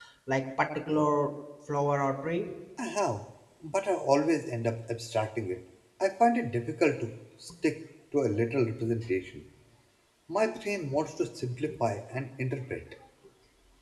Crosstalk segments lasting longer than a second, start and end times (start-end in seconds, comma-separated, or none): none